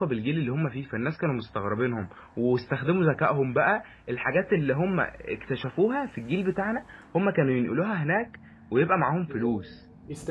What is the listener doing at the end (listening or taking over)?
taking over